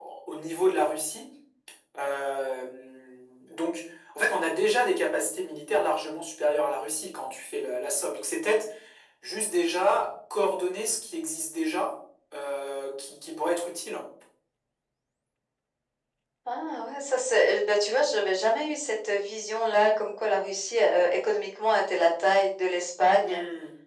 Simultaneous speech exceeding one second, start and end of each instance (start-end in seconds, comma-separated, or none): none